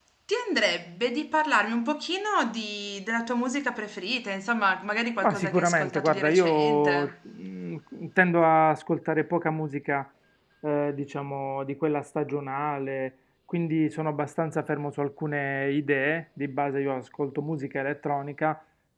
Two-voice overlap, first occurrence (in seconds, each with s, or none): 5.2 s